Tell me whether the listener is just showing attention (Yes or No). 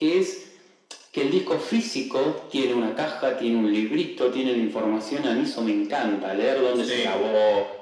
Yes